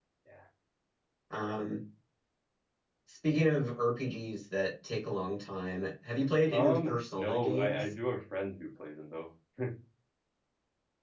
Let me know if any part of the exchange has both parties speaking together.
Yes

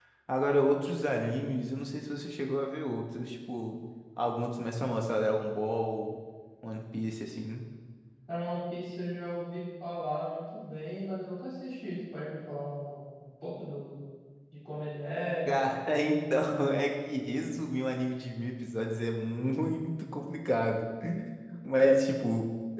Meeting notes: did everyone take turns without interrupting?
Yes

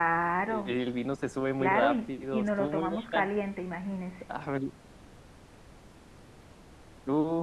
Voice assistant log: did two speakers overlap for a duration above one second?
Yes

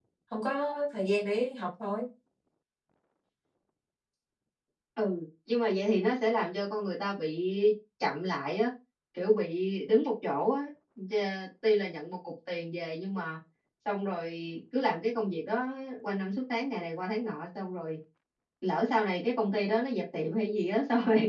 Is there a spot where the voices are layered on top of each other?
No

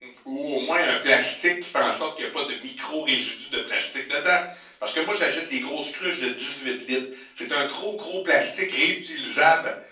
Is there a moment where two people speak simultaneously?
No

